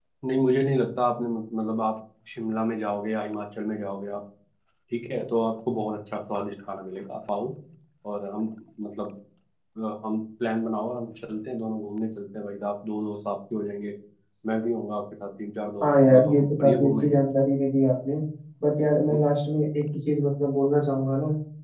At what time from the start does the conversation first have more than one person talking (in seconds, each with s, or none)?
15.8 s